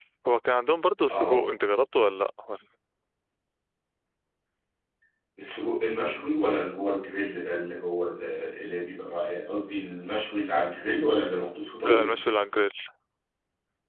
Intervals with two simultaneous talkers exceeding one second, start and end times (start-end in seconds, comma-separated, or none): none